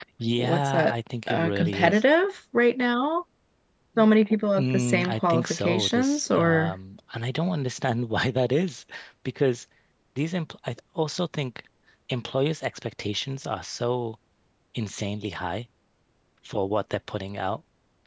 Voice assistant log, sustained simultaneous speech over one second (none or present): present